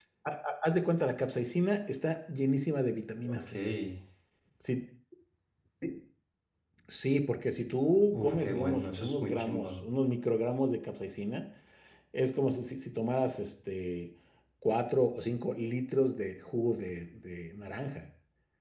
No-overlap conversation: No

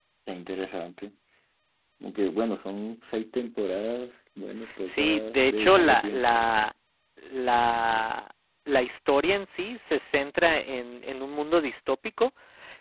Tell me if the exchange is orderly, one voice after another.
No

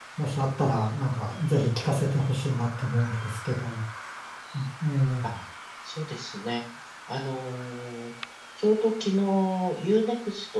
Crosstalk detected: No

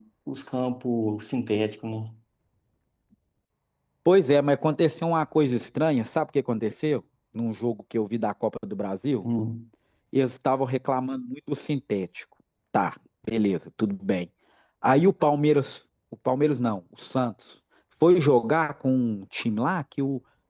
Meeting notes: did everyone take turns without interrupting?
Yes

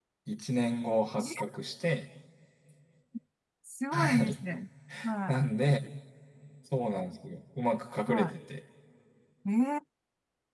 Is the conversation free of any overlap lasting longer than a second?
Yes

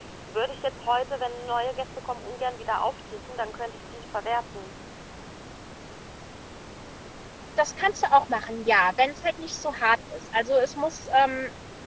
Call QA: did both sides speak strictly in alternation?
Yes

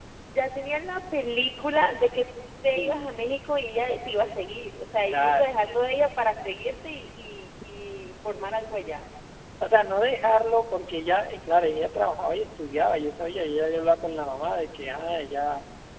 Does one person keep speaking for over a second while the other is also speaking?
No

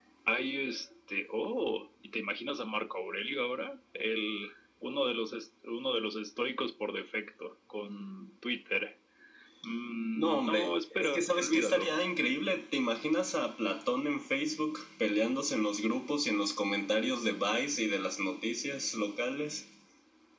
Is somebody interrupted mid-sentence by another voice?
Yes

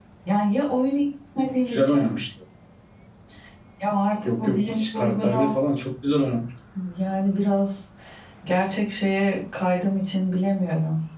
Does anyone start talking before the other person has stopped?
Yes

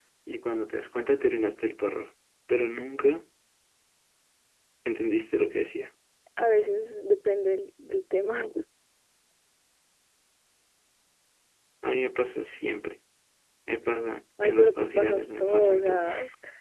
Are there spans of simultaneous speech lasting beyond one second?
Yes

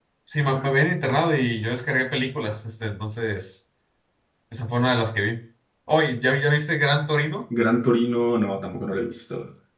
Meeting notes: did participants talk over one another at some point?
No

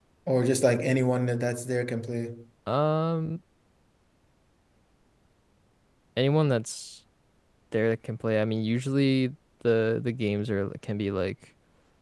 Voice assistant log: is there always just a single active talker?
Yes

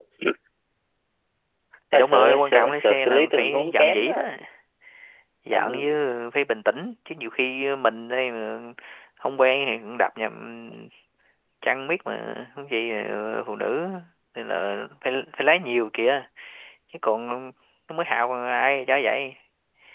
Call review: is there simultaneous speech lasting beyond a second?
Yes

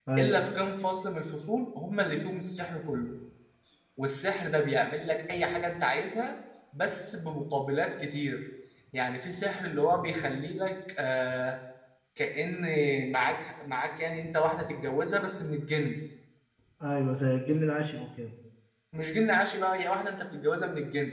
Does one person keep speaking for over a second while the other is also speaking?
No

